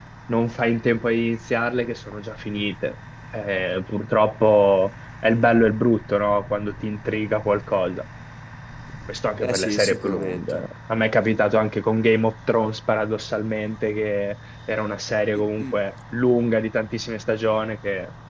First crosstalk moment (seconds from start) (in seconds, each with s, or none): 9.4 s